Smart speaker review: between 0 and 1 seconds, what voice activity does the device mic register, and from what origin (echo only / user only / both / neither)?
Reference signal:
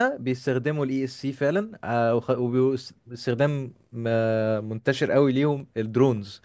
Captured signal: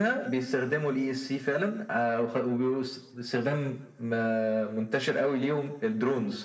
echo only